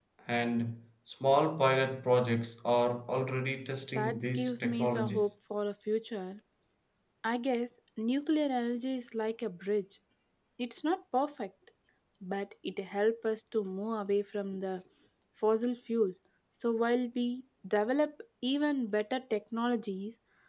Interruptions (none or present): present